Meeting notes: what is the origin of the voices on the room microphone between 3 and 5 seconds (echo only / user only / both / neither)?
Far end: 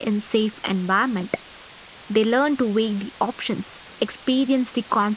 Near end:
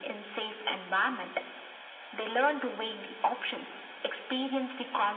echo only